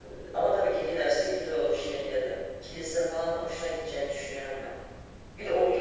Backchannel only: Yes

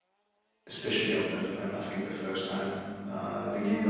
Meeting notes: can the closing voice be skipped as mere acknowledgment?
No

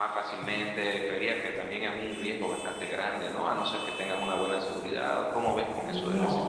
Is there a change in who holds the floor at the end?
Yes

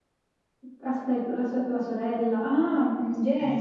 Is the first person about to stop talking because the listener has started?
Yes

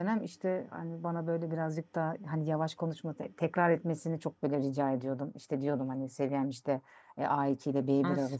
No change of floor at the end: Yes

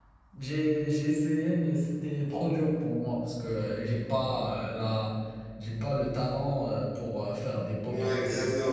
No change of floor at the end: No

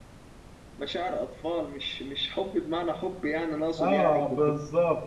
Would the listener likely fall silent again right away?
No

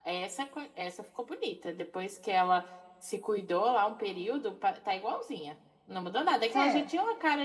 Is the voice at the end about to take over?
No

